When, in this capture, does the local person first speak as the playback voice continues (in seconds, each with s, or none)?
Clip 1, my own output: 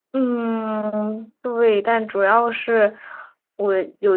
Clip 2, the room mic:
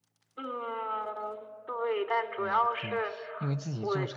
2.4 s